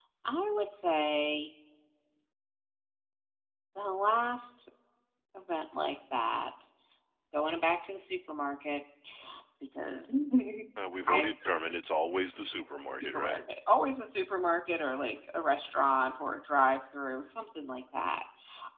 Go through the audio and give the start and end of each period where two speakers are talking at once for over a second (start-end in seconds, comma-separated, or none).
none